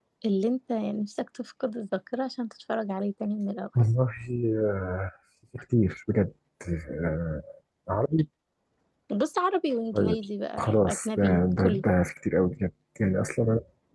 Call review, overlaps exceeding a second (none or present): present